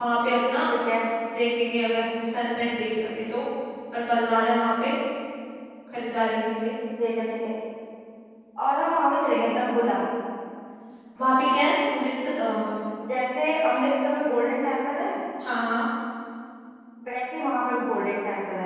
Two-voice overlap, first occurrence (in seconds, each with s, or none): none